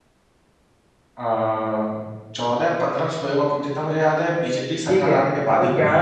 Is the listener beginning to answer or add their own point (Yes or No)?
Yes